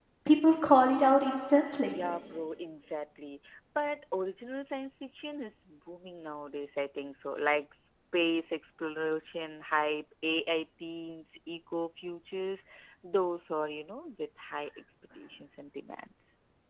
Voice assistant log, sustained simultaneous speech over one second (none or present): none